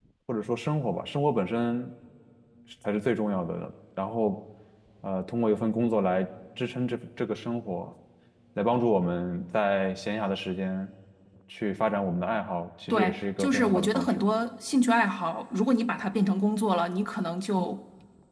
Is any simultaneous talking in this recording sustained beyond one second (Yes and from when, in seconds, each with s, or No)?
Yes, from 12.9 s